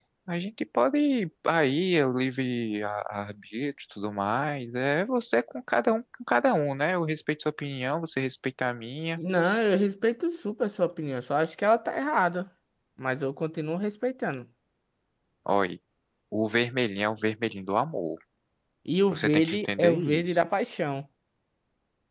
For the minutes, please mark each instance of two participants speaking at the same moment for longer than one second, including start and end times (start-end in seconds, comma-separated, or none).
19.1-20.4